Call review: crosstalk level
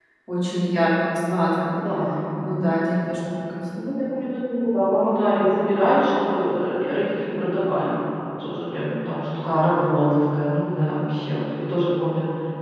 none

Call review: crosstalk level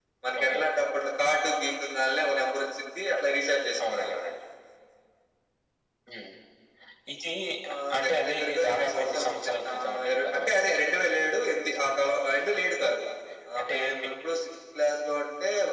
present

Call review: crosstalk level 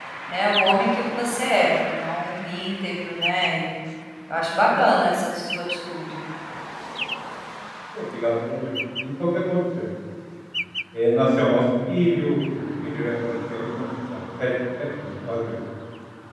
none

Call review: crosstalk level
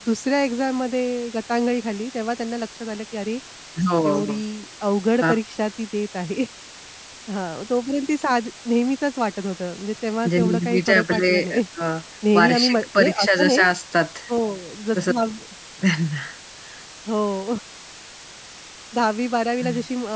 present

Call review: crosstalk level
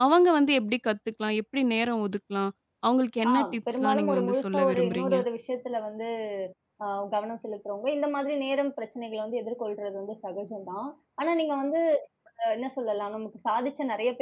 present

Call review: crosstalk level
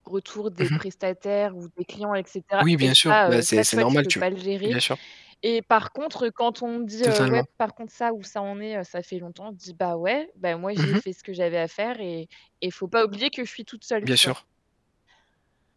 present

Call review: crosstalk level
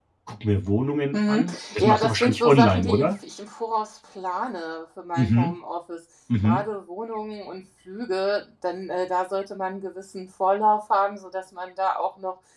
present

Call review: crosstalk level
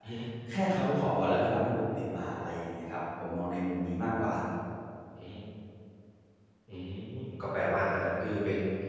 none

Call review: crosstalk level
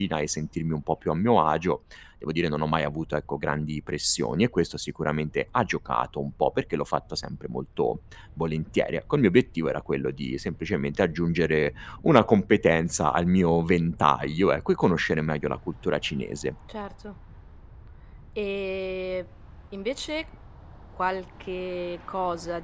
none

